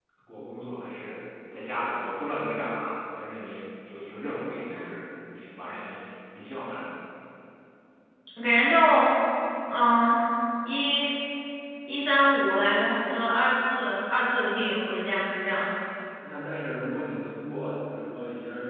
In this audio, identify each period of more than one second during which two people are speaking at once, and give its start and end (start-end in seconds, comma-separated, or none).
none